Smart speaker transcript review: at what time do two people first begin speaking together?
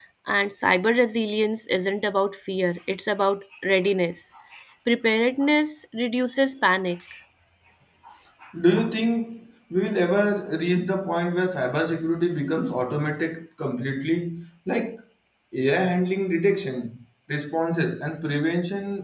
none

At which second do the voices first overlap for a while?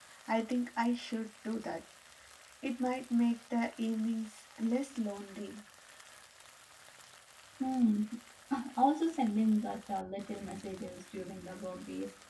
none

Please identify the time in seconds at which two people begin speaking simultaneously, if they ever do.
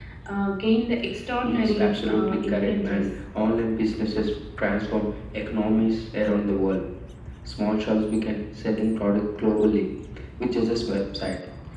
1.4 s

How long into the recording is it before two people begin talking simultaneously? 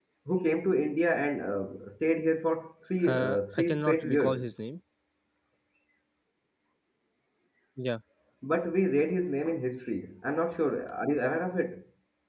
3.0 s

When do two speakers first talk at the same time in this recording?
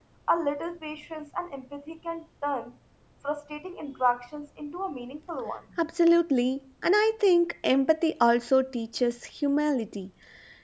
none

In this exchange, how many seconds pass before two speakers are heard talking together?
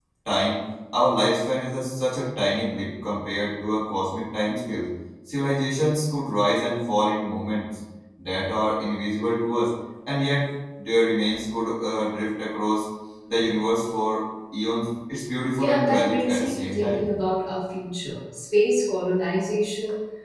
15.6 s

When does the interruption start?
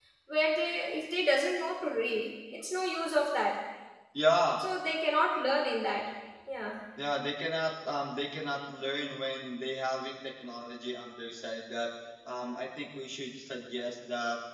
none

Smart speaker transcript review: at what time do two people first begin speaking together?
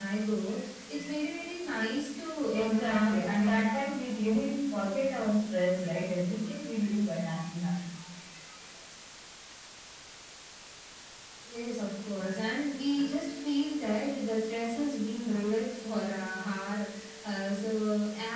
2.5 s

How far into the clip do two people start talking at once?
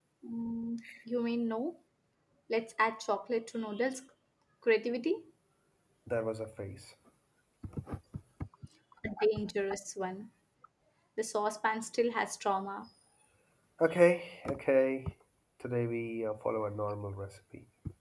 none

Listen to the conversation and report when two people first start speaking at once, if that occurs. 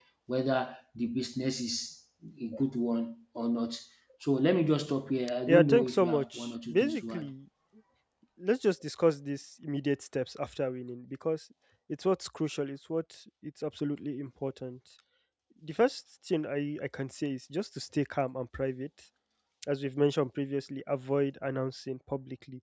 5.4 s

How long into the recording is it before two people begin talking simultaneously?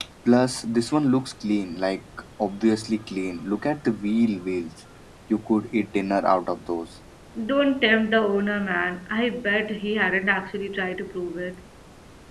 none

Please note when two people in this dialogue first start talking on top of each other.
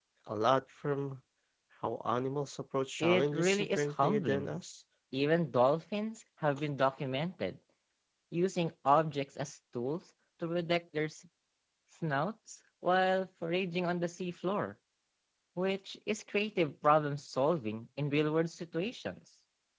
3.0 s

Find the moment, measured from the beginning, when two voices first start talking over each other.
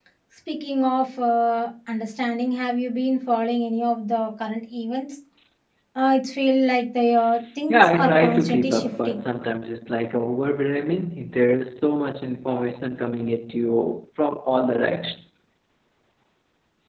7.7 s

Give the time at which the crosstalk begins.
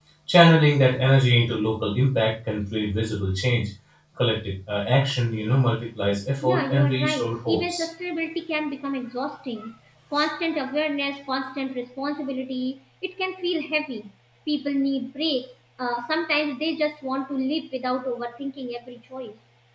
6.4 s

